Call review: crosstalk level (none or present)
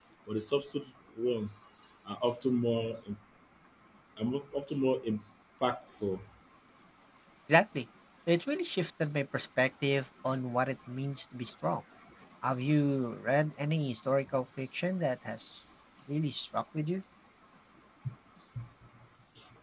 none